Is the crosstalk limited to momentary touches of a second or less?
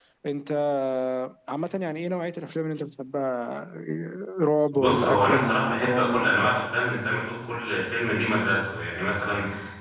No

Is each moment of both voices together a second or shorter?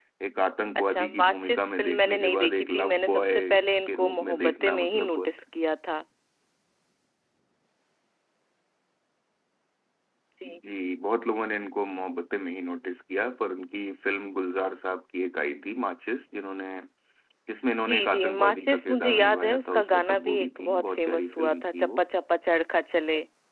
No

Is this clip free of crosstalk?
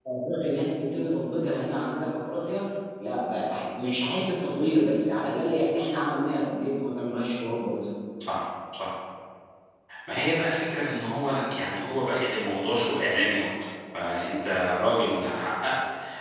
Yes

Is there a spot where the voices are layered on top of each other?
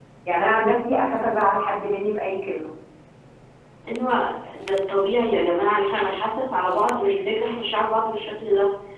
No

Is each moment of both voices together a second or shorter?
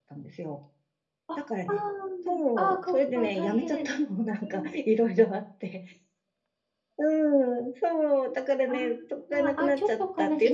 No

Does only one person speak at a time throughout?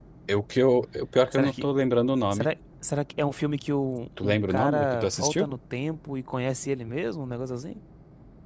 No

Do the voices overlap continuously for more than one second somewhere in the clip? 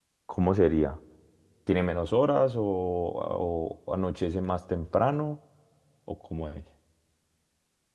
No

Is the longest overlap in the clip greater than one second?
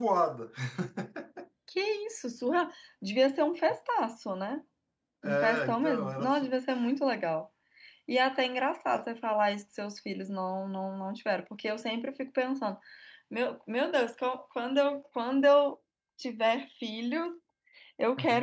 Yes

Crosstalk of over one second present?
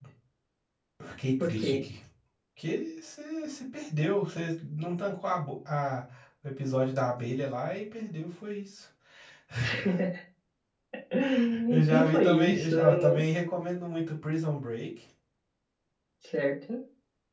Yes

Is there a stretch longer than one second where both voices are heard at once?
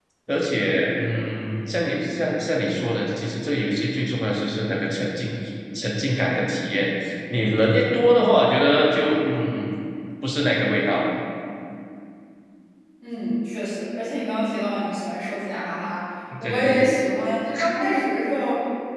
No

